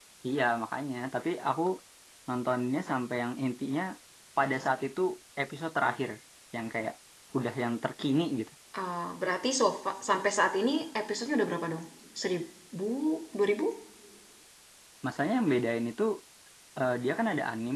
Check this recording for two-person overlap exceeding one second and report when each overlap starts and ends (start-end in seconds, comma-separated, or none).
none